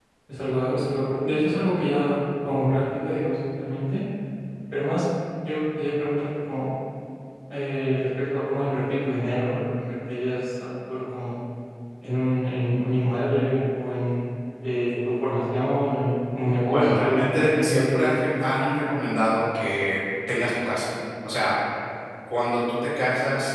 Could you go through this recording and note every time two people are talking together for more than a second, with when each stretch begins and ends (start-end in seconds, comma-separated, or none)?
16.7-18.2